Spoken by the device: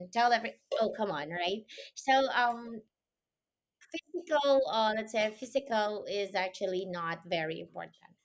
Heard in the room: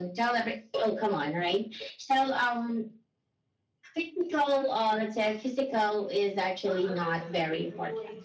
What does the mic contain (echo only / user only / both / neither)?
both